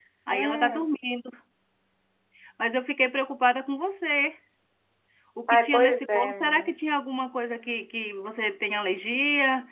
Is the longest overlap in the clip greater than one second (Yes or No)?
Yes